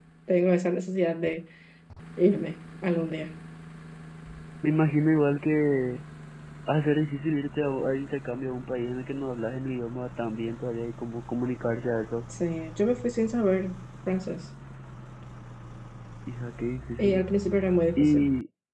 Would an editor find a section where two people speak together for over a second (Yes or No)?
No